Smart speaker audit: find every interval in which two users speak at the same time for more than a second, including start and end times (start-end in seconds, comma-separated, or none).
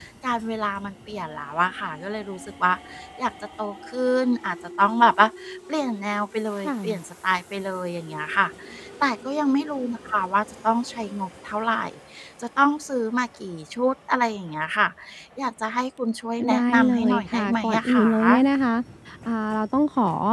16.5-18.4